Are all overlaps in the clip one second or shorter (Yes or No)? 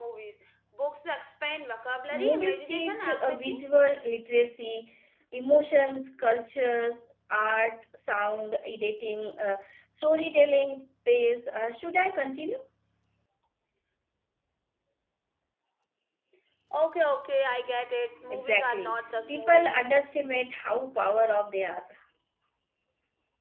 No